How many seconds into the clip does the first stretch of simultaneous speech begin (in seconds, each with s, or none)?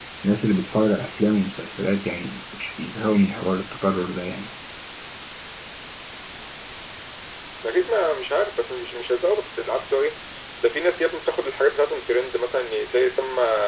none